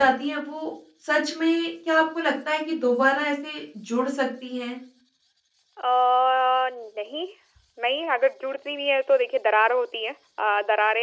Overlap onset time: none

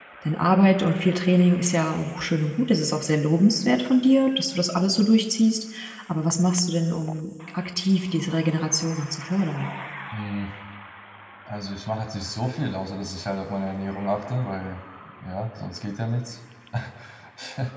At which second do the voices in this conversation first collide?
none

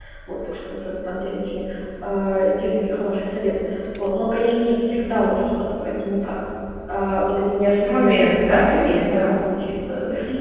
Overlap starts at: 7.8 s

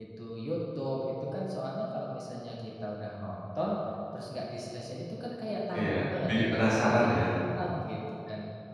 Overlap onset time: 5.7 s

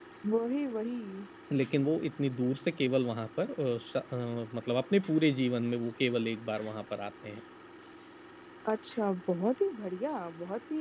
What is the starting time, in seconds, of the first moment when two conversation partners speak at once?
none

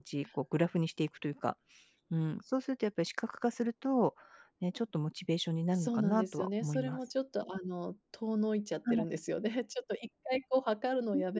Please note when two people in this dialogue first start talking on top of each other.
5.7 s

